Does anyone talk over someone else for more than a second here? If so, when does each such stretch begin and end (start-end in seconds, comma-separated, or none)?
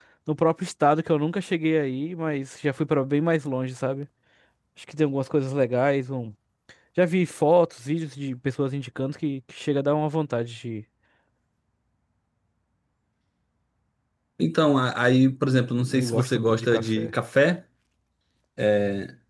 15.8-17.1